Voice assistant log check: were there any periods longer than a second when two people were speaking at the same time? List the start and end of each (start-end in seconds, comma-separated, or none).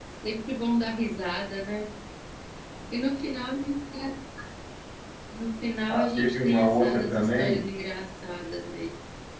5.9-7.7